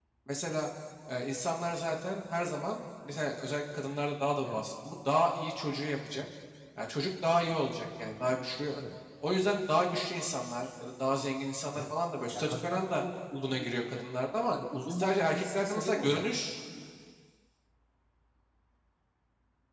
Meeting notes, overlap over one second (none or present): present